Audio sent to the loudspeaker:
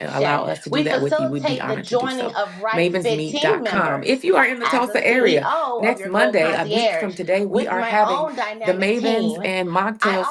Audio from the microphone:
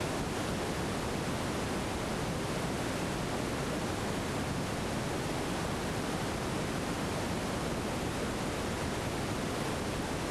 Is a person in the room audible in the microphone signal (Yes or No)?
No